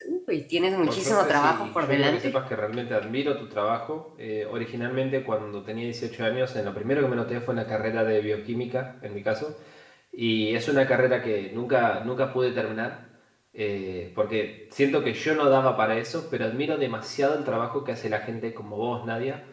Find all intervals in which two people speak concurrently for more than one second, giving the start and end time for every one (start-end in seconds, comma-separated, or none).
0.8-2.3